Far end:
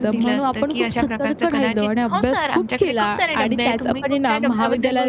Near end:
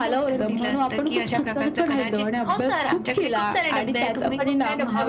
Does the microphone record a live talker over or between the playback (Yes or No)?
No